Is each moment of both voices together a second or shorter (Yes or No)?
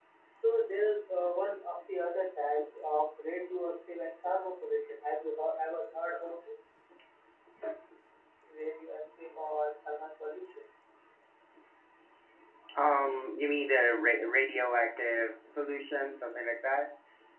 Yes